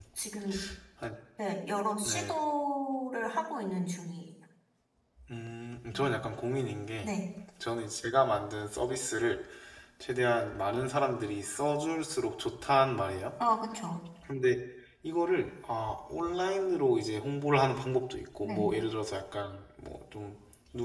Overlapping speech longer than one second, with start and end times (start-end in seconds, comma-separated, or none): none